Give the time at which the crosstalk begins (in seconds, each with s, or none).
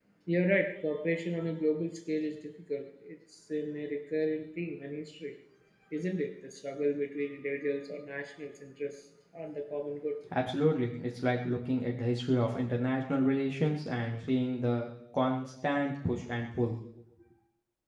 none